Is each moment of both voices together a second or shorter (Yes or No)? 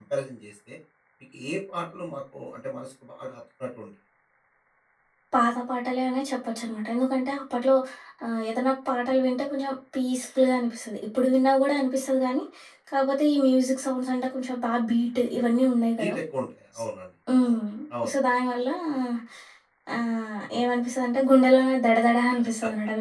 Yes